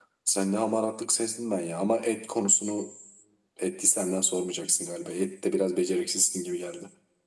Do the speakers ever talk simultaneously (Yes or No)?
No